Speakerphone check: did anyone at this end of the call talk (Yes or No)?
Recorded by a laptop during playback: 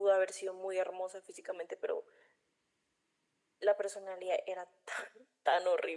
No